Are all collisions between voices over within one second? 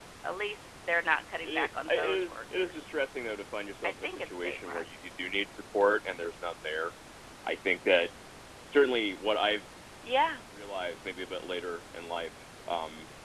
No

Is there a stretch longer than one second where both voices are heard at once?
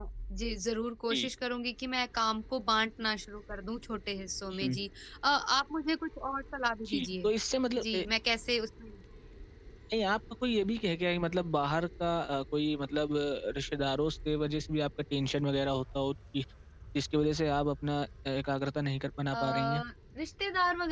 No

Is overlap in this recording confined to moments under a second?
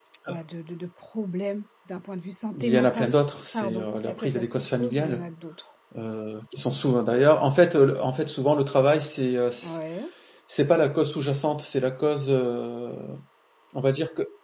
No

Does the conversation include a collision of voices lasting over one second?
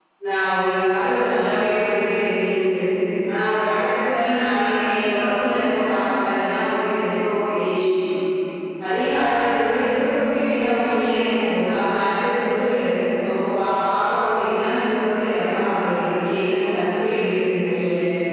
No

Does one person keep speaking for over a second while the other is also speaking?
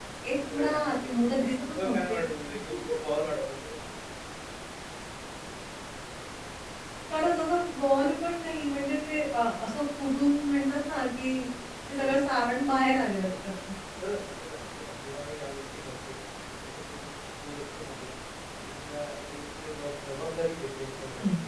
Yes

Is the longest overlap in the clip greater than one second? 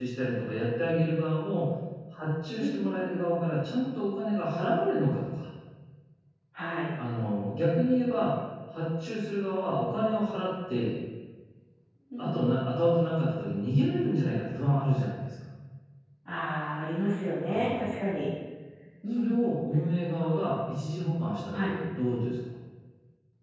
No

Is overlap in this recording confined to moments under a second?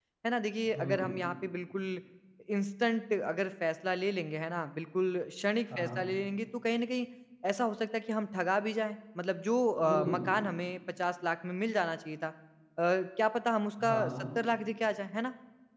Yes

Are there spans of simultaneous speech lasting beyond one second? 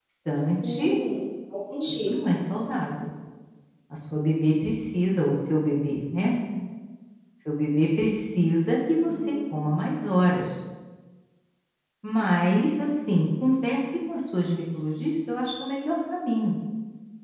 No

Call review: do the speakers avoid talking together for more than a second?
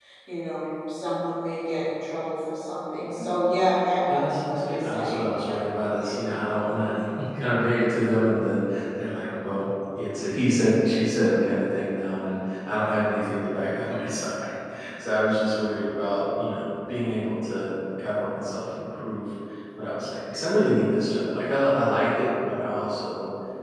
No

